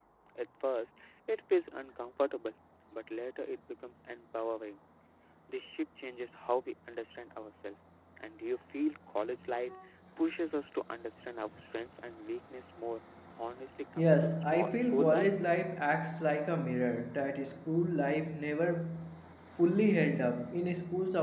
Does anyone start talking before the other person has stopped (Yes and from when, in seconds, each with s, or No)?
Yes, from 14.0 s